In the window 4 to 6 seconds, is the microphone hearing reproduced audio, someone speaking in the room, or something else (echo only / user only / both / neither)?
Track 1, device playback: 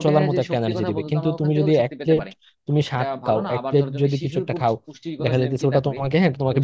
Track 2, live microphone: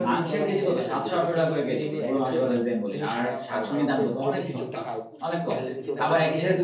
both